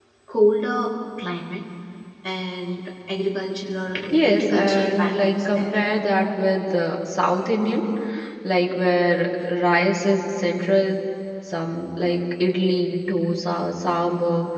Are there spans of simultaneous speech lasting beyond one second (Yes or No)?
Yes